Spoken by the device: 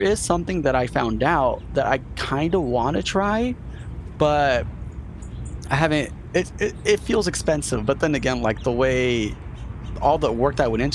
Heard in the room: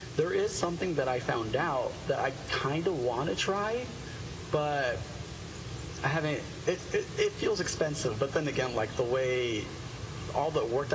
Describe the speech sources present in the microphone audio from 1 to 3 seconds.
echo only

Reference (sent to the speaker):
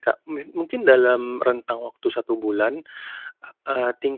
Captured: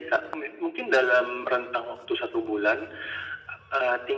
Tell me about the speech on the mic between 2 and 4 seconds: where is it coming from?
echo only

